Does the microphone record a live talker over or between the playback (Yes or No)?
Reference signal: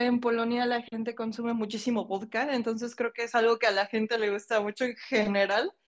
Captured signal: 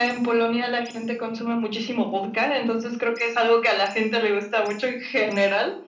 No